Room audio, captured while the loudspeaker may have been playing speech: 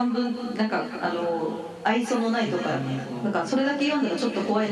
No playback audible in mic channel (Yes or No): No